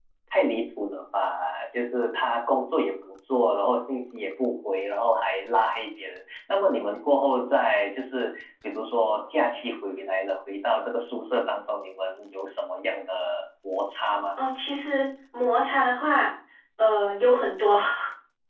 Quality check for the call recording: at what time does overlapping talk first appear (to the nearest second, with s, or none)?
none